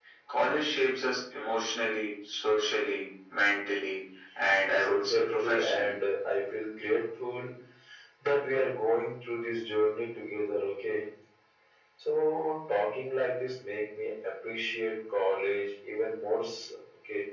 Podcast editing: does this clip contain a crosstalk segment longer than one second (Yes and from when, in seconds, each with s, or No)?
Yes, from 4.7 s